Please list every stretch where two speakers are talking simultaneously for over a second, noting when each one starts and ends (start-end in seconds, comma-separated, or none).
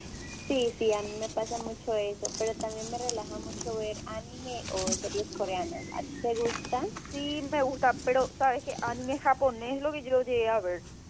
none